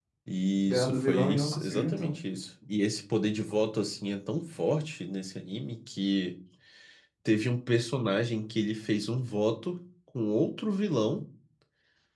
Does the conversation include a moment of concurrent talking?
Yes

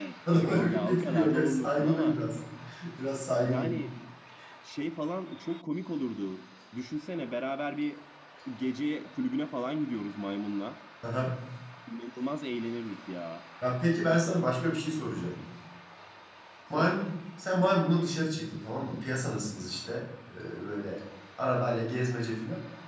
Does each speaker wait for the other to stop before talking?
No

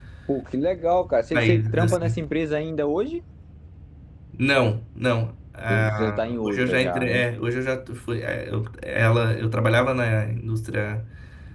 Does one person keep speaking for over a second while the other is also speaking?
Yes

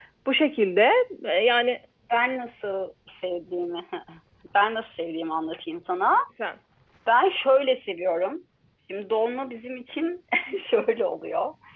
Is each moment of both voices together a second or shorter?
Yes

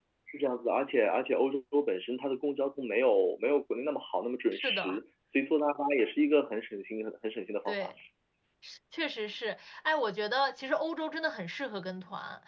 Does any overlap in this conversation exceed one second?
No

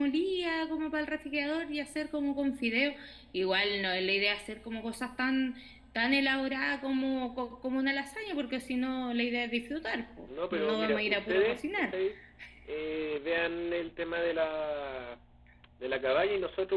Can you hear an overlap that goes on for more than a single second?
Yes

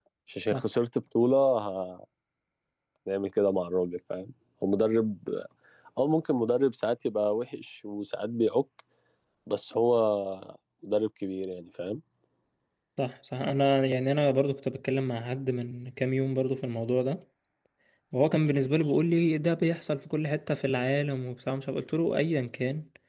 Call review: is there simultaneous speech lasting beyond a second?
No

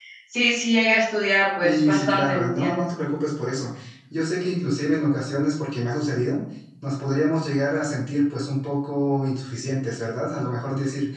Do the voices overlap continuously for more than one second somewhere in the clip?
Yes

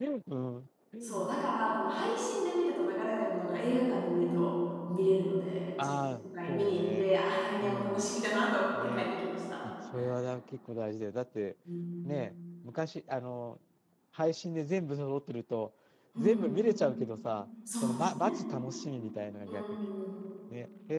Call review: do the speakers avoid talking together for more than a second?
No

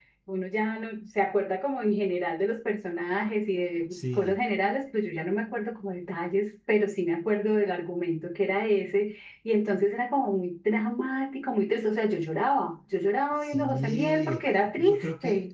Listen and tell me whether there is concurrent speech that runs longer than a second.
Yes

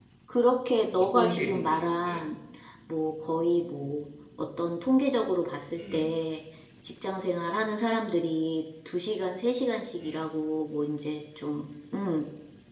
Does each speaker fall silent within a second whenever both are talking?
No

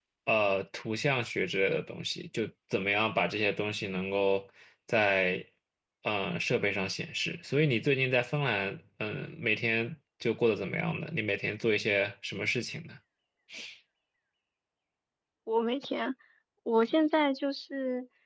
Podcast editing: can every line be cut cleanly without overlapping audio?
Yes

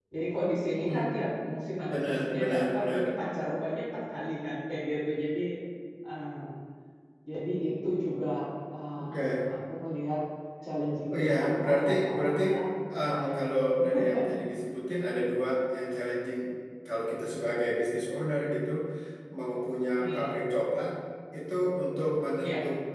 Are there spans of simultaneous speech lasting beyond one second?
Yes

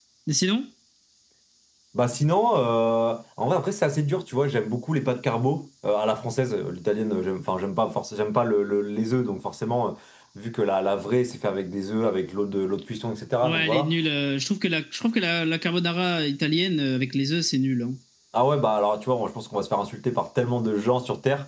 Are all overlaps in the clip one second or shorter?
Yes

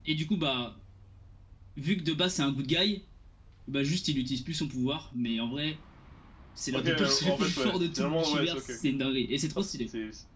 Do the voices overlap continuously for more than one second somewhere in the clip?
Yes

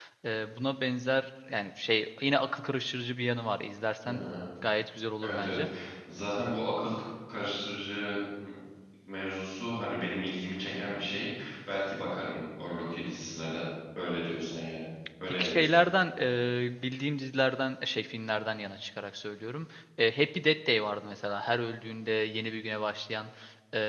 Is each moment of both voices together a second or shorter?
Yes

